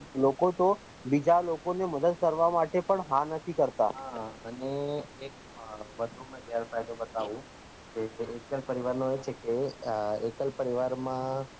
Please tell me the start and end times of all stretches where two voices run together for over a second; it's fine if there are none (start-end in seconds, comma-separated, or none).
none